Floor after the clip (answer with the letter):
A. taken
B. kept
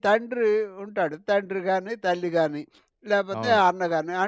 B